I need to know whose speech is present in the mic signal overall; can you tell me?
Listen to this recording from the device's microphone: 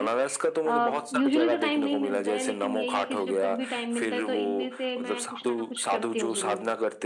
both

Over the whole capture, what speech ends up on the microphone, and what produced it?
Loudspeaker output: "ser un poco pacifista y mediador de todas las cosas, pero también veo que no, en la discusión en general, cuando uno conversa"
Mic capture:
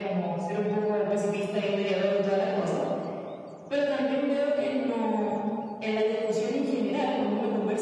echo only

